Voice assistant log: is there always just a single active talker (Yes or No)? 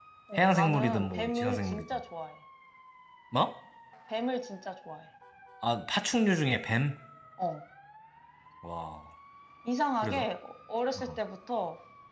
No